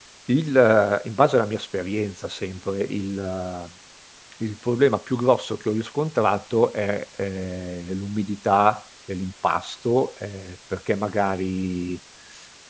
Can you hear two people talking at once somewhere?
No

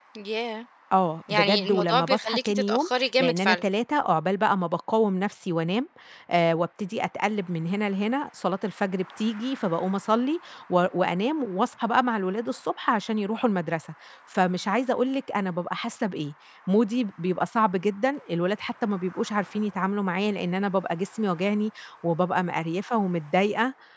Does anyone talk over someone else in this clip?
Yes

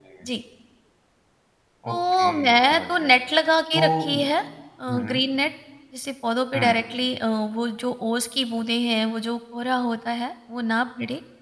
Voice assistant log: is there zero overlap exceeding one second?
No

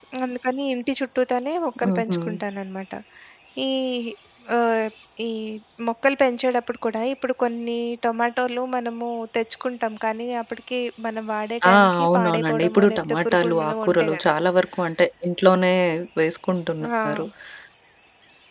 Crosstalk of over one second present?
Yes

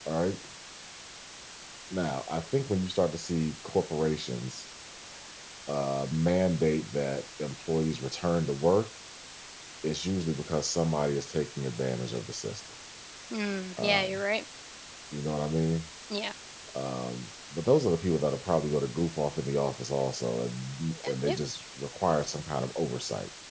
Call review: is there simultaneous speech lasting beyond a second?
No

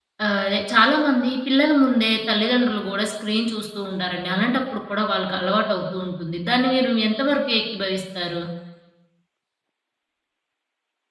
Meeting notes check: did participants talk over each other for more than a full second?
No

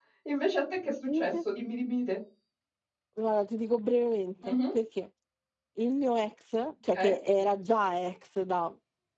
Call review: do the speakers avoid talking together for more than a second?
Yes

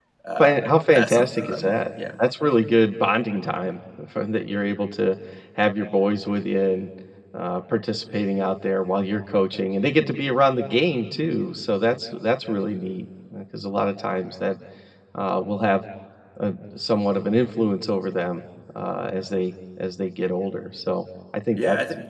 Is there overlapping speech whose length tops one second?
Yes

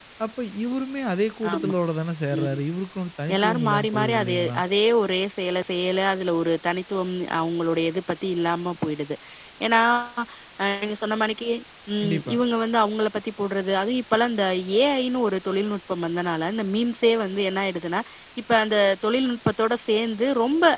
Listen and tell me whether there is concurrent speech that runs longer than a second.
Yes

